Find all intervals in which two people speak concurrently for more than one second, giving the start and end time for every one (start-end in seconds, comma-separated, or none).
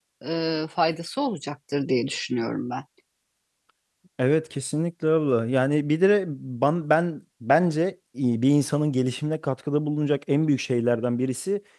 none